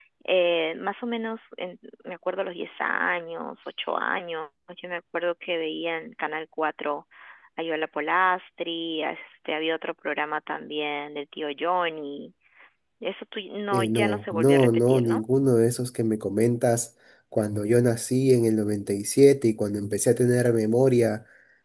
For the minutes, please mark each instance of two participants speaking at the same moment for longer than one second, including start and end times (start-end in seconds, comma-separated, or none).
13.7-15.2